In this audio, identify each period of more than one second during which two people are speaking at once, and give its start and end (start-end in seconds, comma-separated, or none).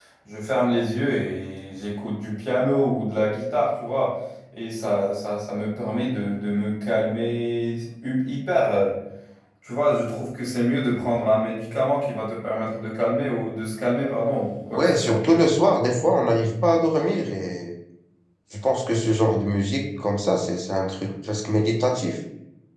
none